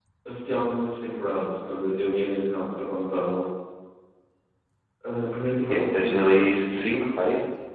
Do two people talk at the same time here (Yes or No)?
Yes